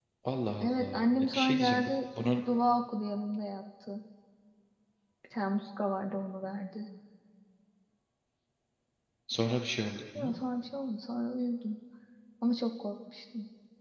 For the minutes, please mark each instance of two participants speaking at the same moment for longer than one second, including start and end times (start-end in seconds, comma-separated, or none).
0.6-1.9